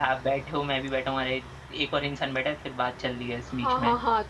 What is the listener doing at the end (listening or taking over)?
taking over